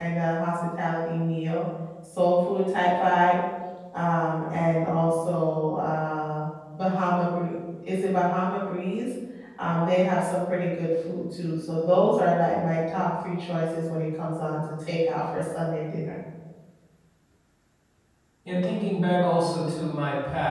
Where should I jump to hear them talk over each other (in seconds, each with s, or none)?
none